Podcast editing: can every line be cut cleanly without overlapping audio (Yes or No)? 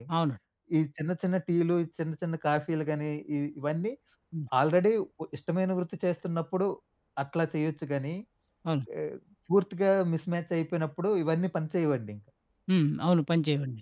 Yes